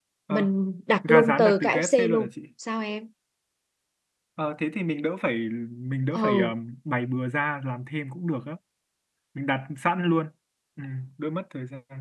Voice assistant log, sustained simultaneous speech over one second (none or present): present